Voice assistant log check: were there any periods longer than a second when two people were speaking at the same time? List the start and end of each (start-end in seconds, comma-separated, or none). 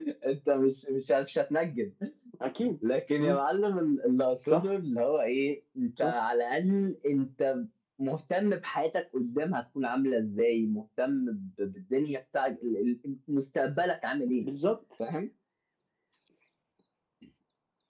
none